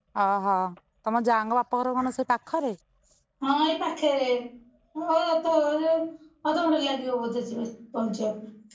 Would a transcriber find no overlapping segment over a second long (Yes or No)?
Yes